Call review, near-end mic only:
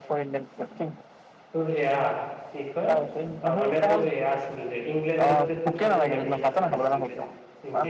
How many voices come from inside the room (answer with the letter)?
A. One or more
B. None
A